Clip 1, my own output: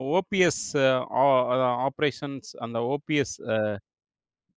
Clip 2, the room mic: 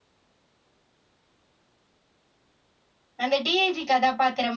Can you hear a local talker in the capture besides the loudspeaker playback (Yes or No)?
Yes